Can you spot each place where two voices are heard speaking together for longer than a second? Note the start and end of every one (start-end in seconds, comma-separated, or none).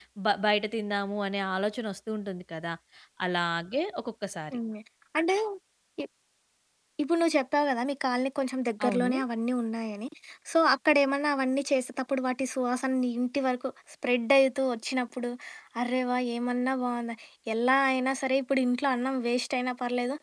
none